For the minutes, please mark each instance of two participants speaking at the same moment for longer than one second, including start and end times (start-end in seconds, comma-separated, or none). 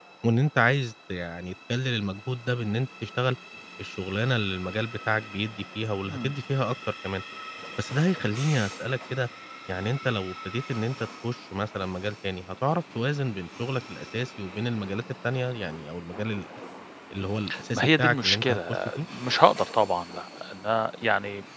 17.8-19.0